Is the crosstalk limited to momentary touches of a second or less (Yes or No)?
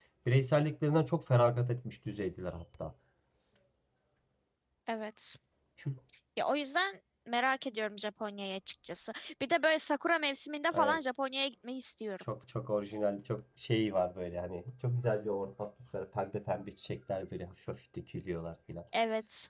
Yes